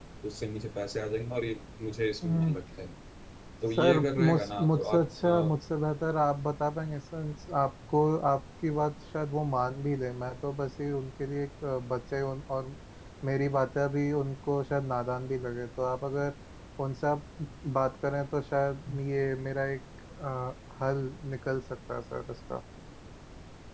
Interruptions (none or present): present